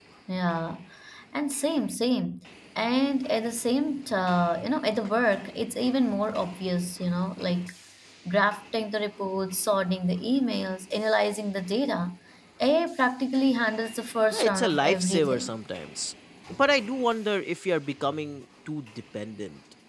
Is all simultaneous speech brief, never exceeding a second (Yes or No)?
No